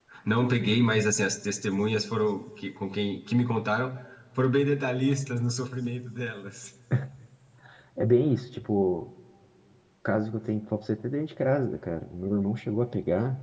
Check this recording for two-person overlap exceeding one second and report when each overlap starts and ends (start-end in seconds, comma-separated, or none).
none